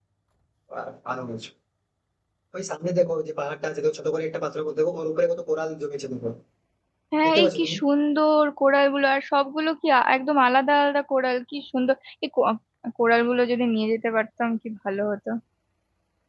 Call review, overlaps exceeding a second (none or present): none